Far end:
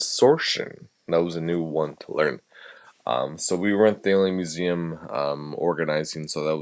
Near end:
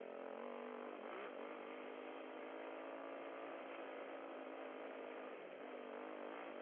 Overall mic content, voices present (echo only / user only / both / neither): neither